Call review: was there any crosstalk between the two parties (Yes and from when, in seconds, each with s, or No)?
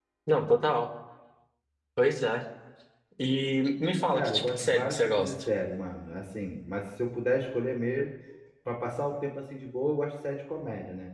Yes, from 4.1 s